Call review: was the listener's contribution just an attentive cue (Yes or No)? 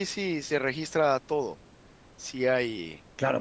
No